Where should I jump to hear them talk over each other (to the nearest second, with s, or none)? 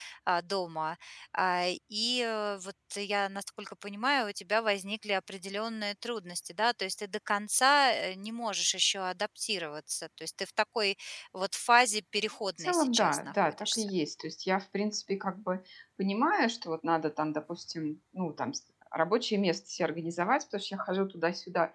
13 s